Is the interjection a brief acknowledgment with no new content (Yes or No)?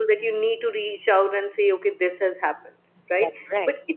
Yes